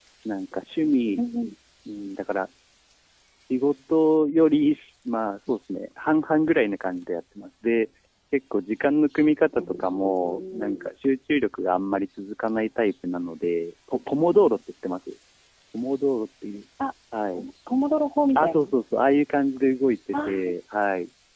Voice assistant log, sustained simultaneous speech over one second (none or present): present